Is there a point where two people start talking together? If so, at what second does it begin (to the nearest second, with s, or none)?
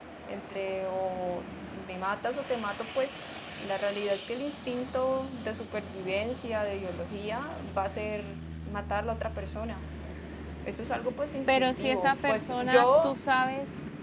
11 s